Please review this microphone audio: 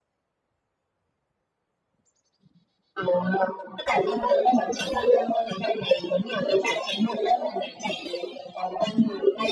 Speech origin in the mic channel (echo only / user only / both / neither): echo only